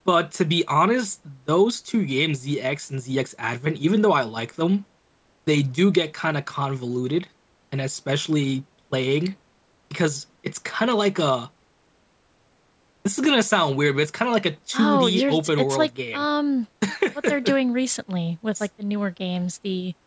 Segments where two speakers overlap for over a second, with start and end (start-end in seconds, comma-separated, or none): 14.7-16.2